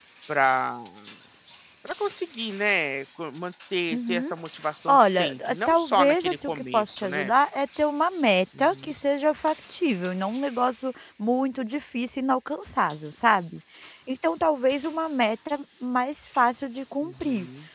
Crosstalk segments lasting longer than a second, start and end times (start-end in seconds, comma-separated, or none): 4.9-7.3